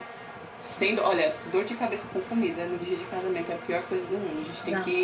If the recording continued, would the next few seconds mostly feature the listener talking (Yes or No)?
No